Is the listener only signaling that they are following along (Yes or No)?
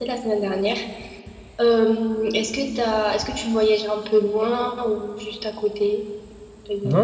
No